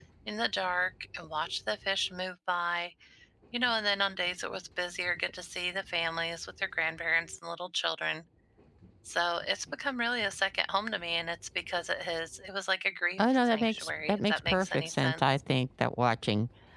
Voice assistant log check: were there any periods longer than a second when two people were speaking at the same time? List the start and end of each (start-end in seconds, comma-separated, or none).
13.2-15.2